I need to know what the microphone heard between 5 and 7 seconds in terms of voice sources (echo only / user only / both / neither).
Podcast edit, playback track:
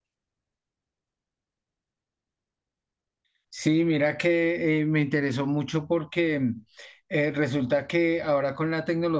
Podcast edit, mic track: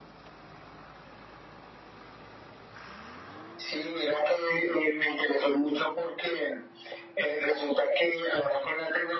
echo only